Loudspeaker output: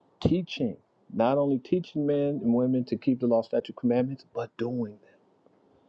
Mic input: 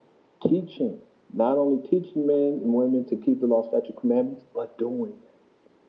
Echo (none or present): present